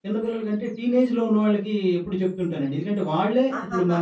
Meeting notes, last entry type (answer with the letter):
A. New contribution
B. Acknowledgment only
B